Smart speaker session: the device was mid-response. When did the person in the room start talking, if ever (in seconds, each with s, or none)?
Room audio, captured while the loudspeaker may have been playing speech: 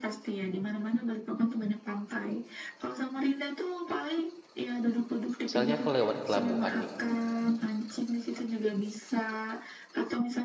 5.5 s